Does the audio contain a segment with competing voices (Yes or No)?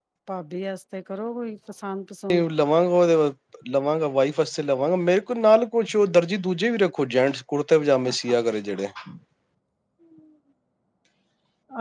No